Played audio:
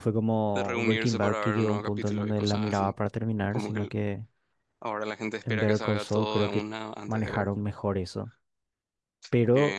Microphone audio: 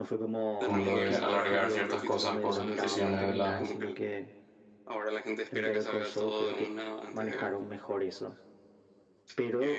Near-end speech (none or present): present